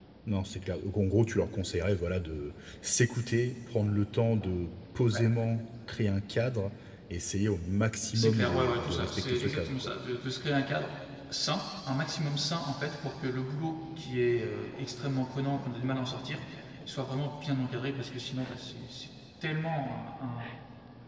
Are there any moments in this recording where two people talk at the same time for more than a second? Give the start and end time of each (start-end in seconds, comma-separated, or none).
8.1-9.9